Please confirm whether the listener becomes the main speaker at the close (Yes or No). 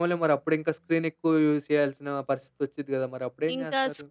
Yes